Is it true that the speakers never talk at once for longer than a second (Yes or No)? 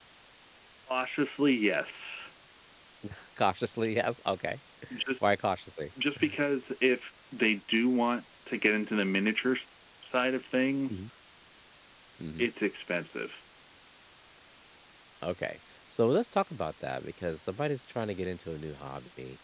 Yes